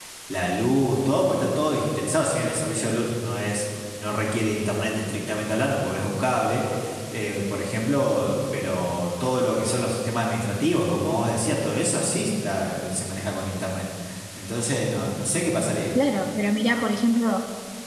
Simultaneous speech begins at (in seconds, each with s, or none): none